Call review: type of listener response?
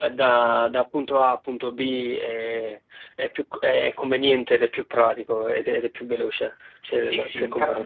taking over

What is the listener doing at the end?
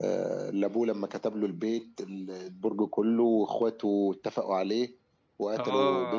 taking over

